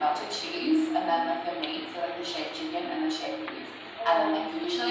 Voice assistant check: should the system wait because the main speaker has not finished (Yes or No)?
Yes